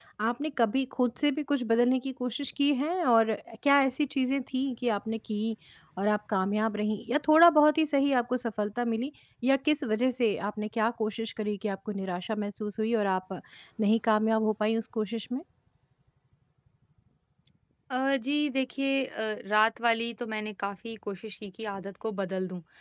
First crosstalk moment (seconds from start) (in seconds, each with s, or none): none